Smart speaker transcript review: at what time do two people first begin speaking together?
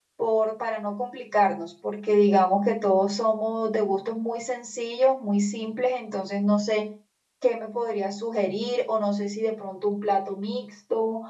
none

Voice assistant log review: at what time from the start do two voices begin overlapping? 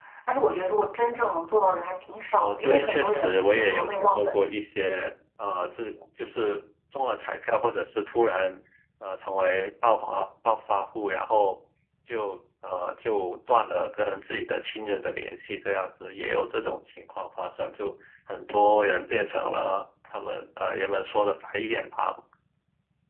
2.3 s

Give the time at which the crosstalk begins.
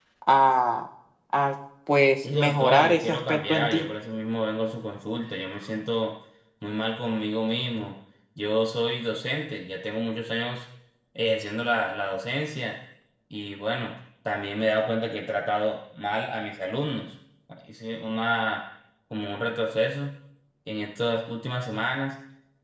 2.2 s

